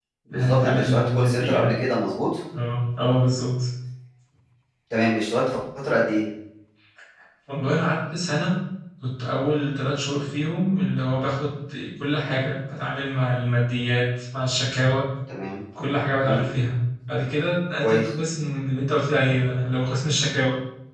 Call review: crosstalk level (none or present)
present